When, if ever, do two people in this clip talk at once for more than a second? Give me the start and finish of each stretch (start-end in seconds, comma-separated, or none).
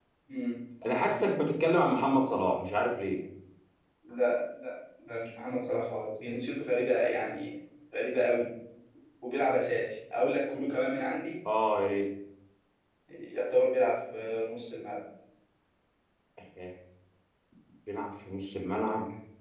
none